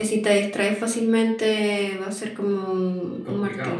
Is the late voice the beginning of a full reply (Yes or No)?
Yes